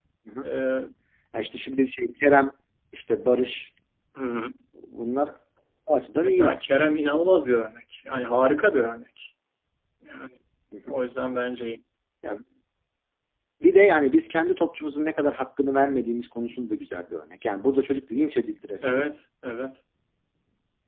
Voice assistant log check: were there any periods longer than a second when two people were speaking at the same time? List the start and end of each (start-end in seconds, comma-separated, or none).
none